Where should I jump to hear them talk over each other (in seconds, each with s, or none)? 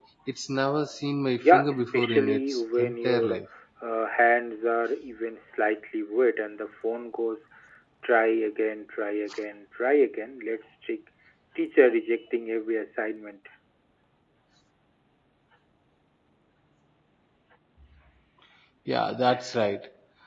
1.4 s